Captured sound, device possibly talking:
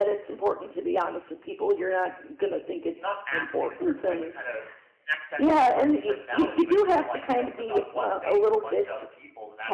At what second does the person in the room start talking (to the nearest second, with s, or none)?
3 s